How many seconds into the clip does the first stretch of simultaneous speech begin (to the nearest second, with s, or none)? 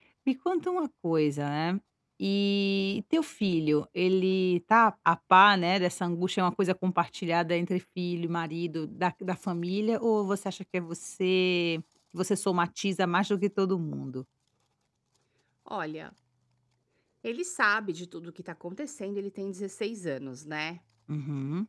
none